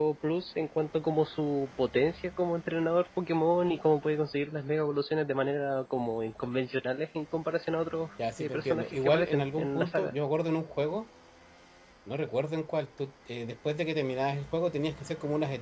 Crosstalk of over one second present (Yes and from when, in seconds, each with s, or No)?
Yes, from 8.2 s